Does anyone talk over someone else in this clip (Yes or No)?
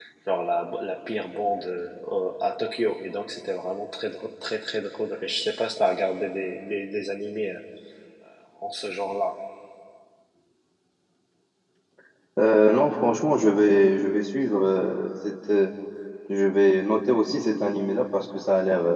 No